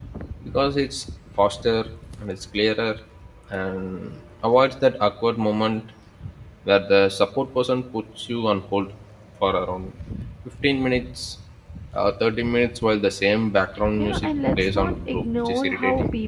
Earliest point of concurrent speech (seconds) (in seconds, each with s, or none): 14.0 s